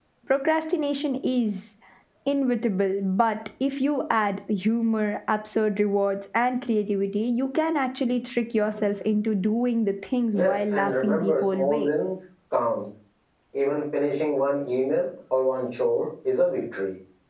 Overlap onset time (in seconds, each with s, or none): 10.3 s